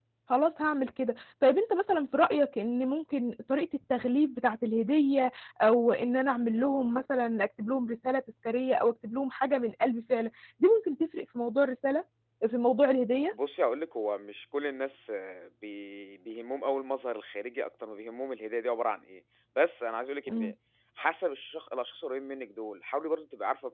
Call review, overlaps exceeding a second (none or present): none